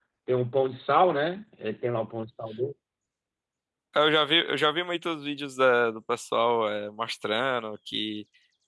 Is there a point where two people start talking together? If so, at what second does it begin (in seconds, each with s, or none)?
none